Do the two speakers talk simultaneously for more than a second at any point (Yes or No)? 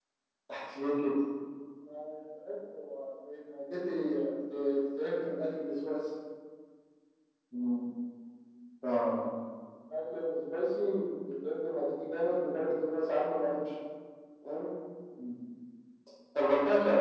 No